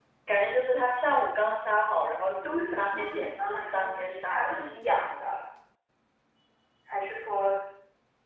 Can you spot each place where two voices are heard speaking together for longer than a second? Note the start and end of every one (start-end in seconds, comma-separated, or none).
2.4-4.7